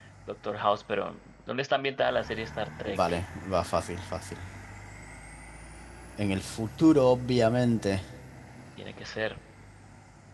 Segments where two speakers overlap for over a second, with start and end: none

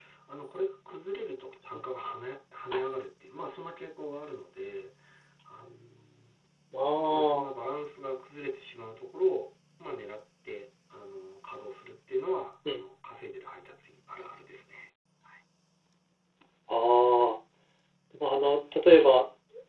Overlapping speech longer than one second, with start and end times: none

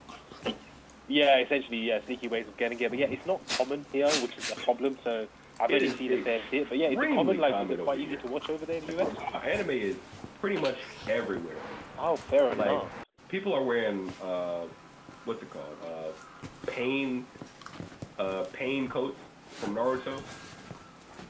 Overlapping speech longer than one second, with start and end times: 5.7-8.2

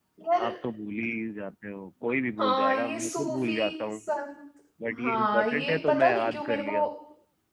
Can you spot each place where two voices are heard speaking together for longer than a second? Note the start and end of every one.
2.4-4.0, 5.0-6.8

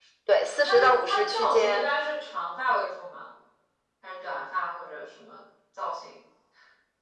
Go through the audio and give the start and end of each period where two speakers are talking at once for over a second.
0.6-1.9

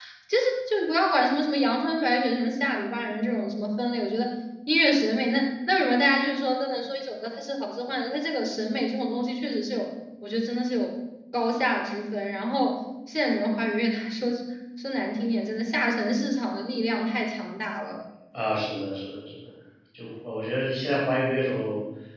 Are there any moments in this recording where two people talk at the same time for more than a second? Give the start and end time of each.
none

